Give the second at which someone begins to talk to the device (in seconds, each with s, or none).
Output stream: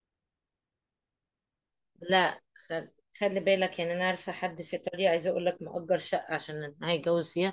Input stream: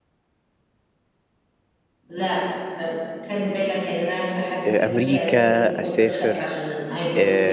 4.7 s